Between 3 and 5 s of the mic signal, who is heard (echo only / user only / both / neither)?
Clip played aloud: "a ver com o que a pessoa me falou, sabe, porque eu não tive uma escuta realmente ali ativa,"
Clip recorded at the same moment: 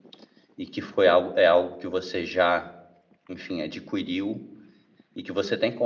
user only